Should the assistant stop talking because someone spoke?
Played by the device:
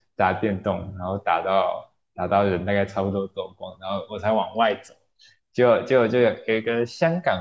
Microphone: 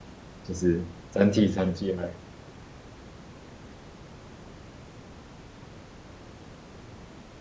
Yes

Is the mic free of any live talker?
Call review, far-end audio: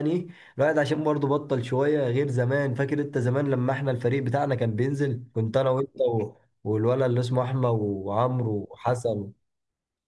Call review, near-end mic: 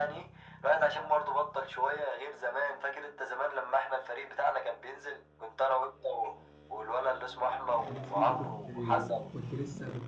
No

